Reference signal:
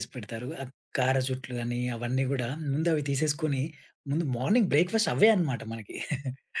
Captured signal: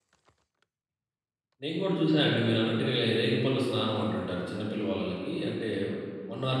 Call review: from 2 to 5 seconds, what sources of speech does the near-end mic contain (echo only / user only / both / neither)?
user only